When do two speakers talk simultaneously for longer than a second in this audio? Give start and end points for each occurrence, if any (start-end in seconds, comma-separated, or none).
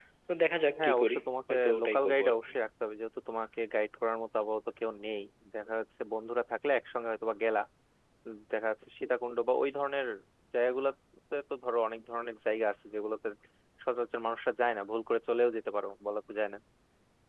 0.8-2.4